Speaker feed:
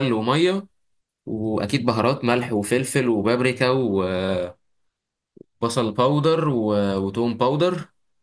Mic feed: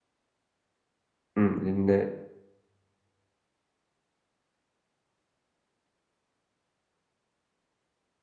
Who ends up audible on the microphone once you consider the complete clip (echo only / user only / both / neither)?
user only